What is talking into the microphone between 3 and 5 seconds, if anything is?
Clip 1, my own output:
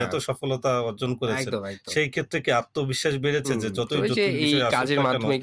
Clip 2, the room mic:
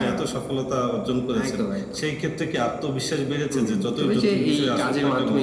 echo only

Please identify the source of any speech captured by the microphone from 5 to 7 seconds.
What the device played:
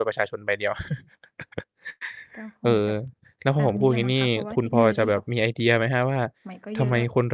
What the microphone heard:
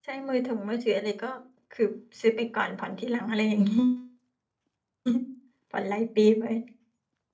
user only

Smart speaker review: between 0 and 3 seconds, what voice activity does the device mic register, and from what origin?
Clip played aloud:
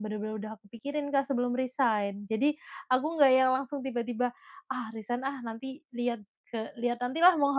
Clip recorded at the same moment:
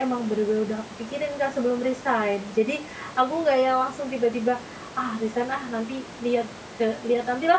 echo only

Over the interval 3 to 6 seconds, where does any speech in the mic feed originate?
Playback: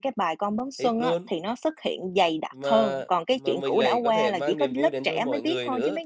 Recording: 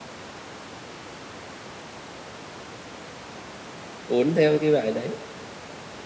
user only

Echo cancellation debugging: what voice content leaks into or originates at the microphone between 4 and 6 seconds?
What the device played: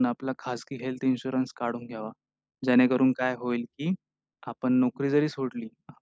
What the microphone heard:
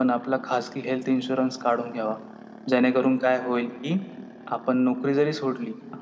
echo only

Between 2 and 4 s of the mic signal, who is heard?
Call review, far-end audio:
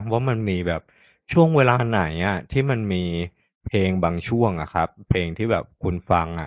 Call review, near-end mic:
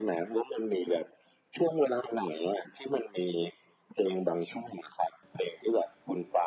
echo only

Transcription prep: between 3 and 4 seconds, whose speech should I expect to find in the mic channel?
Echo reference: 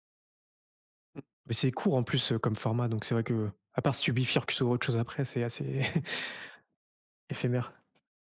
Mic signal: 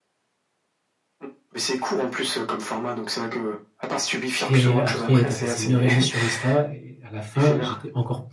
echo only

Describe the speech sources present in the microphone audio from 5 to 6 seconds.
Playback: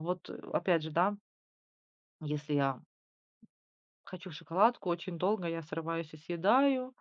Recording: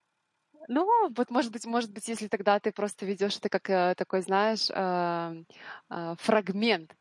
user only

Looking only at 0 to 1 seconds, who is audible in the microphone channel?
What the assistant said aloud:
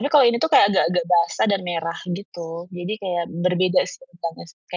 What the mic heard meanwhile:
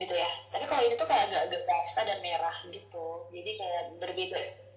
echo only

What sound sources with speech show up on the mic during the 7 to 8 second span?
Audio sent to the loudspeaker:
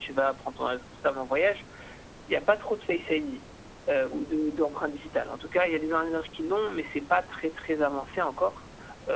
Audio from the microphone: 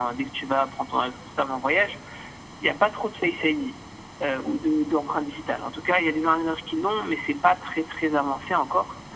echo only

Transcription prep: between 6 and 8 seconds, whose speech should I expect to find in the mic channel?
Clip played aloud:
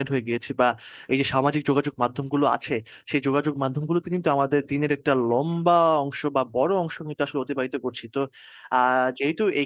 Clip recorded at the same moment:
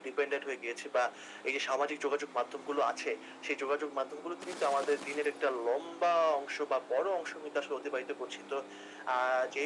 echo only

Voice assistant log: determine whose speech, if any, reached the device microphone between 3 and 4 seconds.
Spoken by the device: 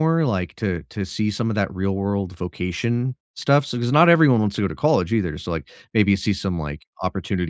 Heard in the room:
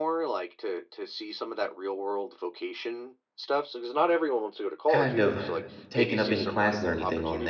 echo only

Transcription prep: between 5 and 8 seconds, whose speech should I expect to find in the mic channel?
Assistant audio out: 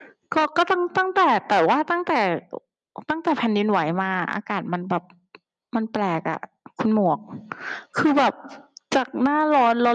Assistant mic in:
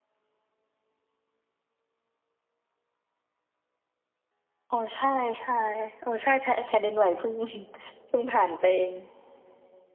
user only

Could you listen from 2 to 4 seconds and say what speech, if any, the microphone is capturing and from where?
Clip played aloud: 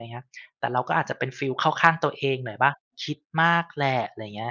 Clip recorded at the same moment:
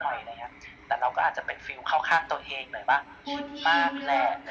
both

